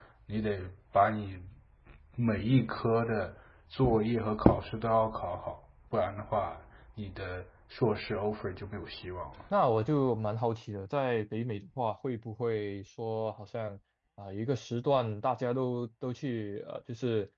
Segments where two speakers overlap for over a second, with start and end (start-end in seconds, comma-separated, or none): none